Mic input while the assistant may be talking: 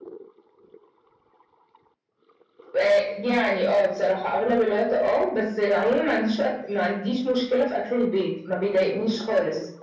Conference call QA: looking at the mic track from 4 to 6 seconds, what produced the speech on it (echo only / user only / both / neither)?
echo only